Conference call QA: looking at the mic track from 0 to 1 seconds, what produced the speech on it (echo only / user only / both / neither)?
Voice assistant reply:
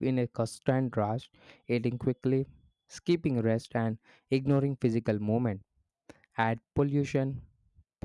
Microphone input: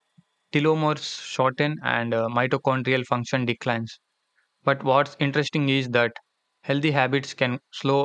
user only